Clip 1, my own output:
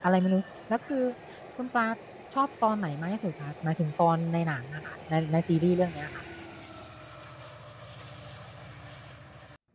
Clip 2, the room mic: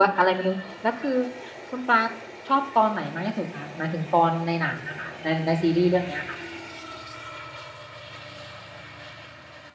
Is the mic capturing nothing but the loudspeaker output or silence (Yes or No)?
Yes